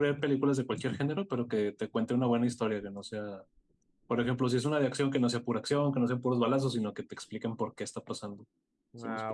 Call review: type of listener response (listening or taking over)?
taking over